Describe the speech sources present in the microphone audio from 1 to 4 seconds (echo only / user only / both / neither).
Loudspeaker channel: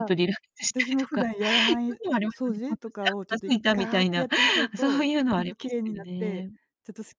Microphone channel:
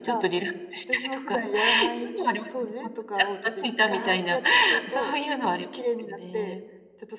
echo only